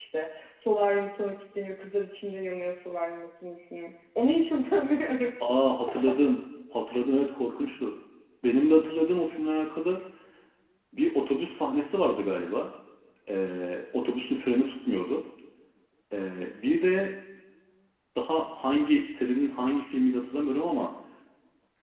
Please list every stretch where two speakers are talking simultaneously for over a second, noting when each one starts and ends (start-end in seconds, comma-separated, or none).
none